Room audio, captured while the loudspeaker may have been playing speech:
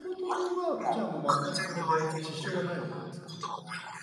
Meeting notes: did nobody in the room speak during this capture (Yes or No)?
No